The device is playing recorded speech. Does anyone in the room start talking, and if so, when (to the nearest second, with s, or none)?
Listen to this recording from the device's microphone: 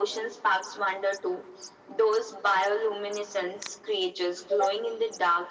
none